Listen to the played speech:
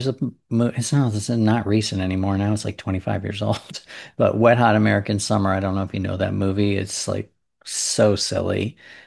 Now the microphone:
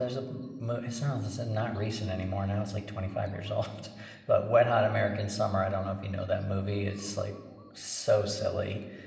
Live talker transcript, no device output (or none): none